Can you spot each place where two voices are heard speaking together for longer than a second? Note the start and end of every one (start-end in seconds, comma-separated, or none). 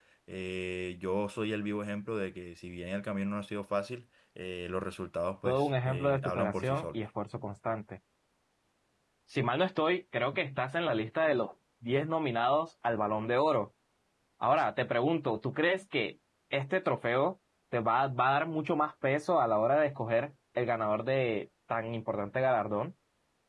5.5-7.0